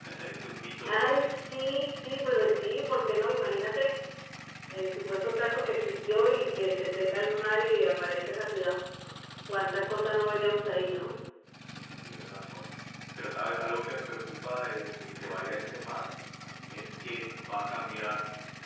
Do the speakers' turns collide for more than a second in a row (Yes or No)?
No